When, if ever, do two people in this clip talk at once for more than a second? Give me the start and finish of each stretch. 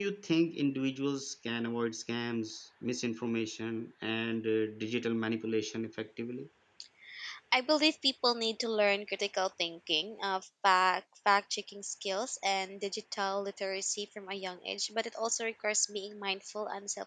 none

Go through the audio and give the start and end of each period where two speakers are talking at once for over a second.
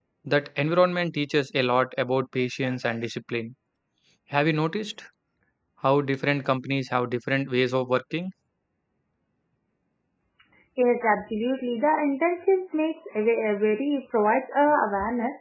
none

